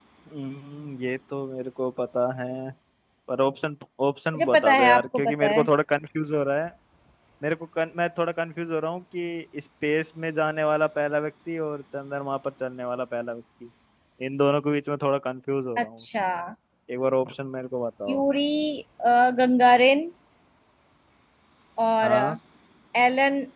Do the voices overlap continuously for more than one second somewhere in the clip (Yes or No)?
Yes